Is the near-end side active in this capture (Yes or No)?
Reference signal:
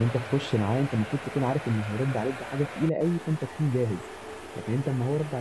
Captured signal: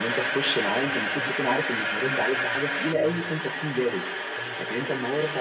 Yes